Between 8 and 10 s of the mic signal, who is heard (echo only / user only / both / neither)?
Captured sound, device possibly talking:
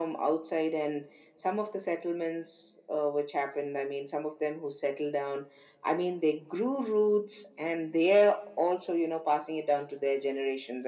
echo only